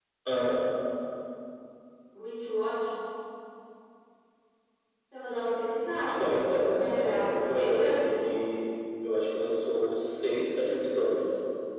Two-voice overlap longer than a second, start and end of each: 6.1-8.3

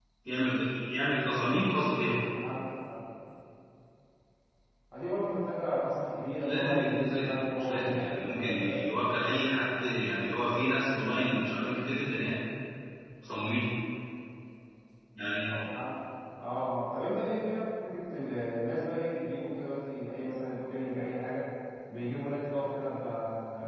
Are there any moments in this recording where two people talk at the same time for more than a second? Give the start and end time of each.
6.4-8.9

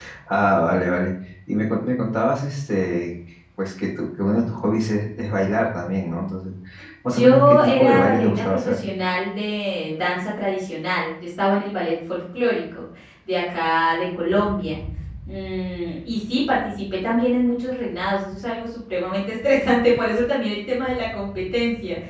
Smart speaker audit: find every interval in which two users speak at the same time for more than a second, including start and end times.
7.1-8.8

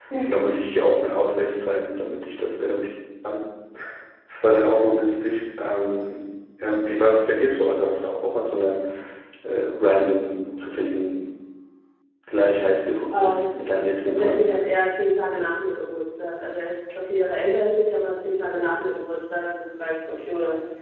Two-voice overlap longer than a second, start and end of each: 13.1-14.5

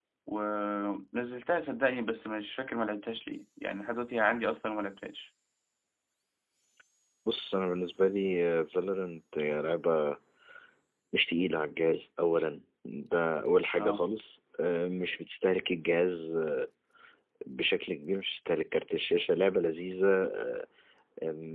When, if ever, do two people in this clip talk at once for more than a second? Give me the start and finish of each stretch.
none

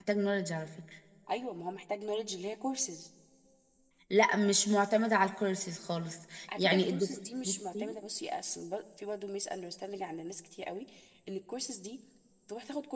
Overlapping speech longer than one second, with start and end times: 6.6-7.9

